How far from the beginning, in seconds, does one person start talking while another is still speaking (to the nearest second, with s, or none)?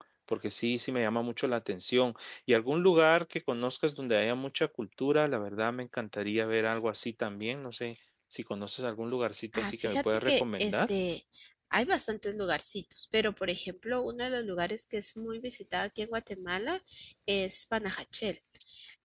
10 s